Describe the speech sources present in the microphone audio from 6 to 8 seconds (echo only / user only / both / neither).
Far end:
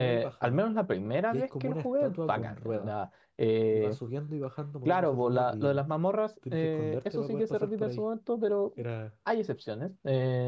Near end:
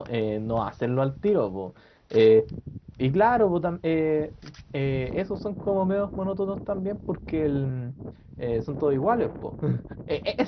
user only